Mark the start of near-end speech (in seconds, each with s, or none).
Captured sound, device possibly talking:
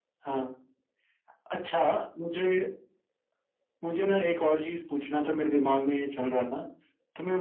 none